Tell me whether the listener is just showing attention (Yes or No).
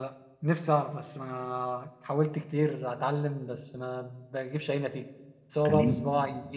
Yes